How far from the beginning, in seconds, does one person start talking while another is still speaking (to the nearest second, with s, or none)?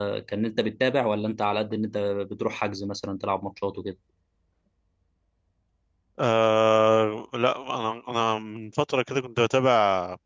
none